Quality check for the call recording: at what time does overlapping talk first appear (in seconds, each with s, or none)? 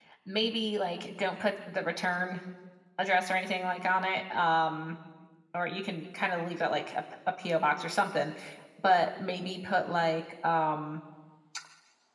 none